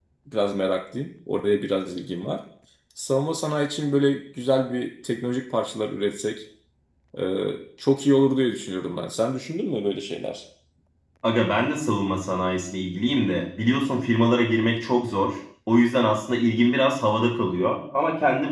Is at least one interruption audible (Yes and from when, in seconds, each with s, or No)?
No